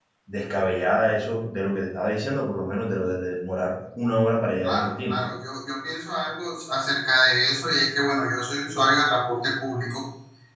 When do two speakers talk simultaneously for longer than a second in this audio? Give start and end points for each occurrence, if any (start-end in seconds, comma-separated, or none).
none